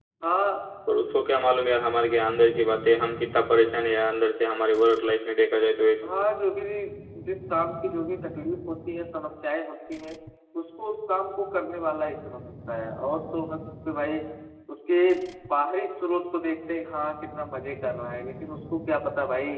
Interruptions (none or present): none